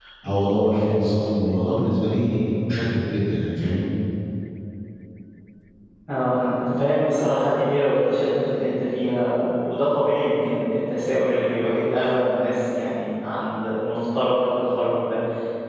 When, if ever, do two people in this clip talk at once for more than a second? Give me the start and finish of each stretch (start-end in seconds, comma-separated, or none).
none